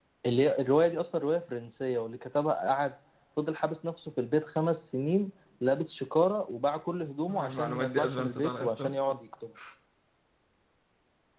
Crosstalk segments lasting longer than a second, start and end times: 7.3-8.9

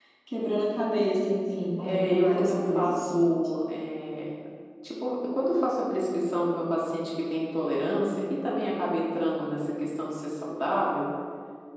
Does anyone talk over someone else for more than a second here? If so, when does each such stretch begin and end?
1.8-3.1

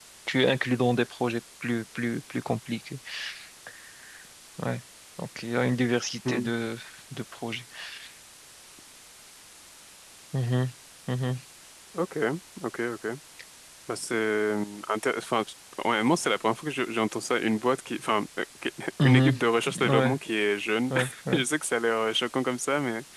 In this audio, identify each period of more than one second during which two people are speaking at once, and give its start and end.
none

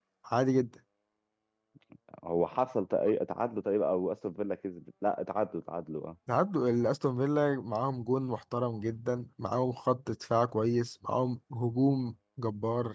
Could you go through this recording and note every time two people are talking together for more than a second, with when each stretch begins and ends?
none

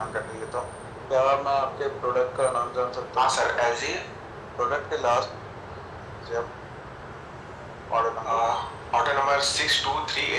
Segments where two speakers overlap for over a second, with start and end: none

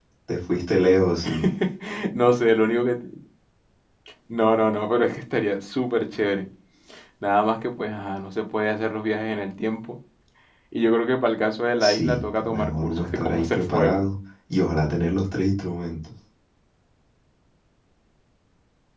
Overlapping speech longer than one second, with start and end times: 11.8-14.0

